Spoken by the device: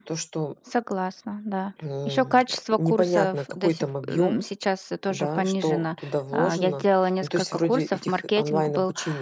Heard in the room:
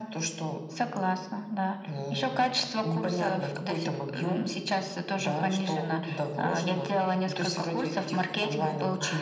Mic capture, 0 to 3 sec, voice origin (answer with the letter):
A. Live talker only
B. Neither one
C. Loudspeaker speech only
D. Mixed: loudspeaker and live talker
C